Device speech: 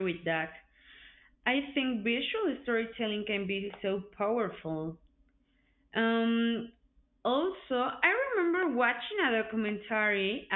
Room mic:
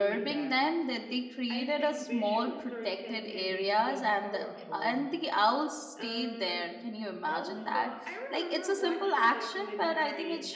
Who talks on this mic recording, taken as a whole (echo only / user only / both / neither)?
both